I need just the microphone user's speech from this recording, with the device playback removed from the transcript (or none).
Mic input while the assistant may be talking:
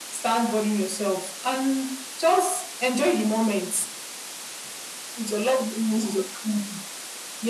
none